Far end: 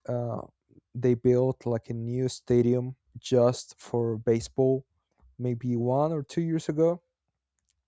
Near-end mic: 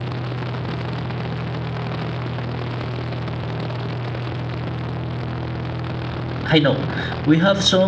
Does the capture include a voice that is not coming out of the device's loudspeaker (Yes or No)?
Yes